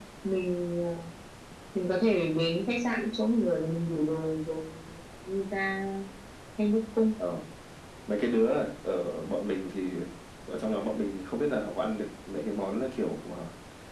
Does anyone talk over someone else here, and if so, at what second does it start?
none

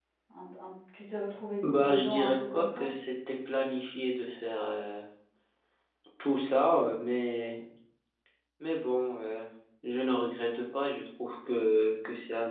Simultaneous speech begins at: 1.6 s

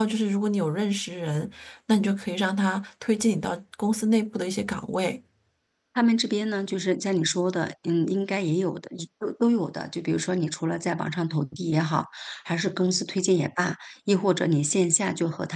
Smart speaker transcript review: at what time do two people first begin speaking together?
none

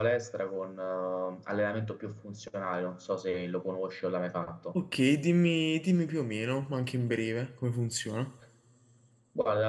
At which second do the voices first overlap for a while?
none

